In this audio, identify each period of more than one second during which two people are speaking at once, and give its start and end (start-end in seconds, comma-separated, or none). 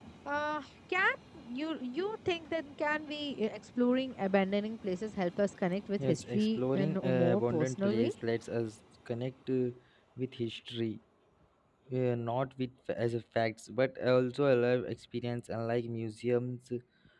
6.0-8.1